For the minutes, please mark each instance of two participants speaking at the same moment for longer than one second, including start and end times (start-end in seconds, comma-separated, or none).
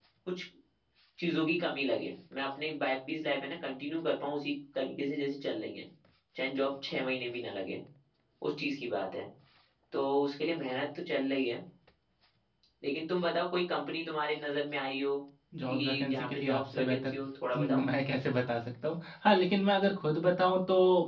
15.7-17.1